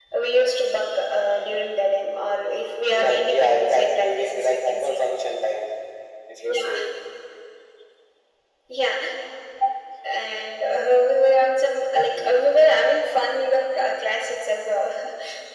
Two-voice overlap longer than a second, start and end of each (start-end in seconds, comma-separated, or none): 2.9-5.0